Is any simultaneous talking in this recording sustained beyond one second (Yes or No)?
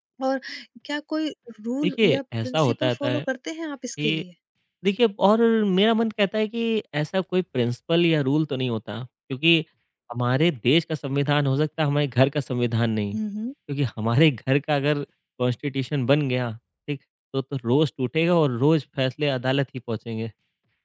Yes